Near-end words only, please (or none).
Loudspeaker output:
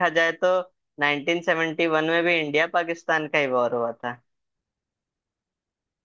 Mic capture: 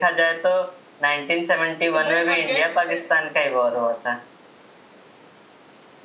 तो भाई अगेंस्ट थे